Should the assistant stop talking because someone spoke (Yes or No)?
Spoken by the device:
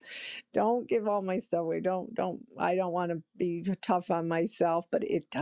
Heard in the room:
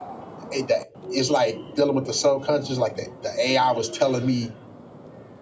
Yes